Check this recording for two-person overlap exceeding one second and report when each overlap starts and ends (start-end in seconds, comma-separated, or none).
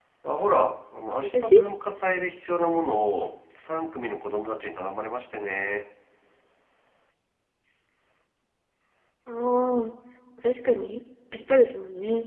none